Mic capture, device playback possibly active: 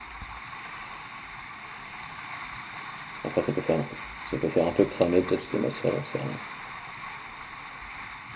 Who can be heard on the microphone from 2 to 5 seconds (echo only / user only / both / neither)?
user only